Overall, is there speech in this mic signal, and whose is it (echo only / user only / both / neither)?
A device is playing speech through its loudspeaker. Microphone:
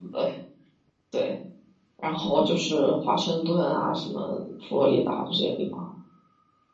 user only